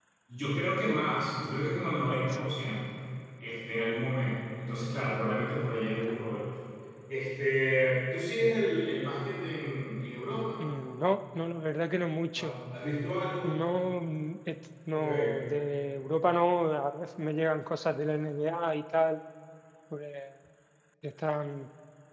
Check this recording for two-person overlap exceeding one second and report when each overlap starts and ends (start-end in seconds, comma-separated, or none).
none